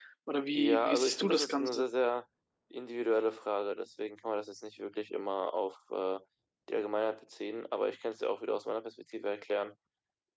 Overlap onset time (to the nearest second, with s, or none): 1 s